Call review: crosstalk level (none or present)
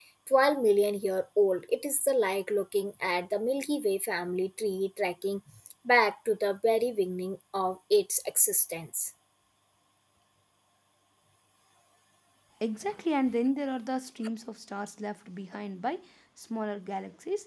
none